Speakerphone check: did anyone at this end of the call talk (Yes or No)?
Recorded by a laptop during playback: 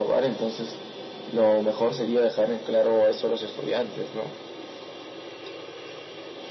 No